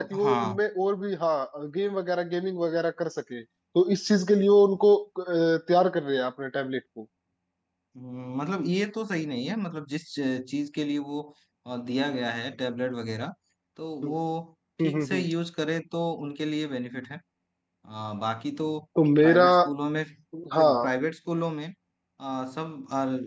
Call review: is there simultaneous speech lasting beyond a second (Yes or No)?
No